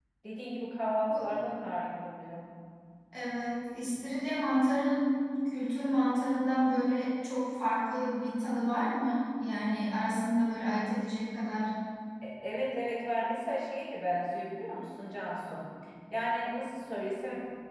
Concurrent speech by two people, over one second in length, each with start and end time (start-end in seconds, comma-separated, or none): none